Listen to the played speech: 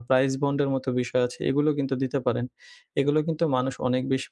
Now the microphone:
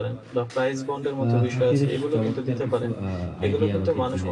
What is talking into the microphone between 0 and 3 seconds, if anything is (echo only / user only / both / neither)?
both